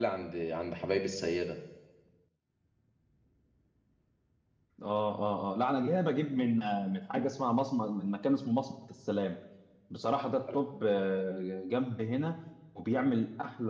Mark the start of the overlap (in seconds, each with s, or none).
none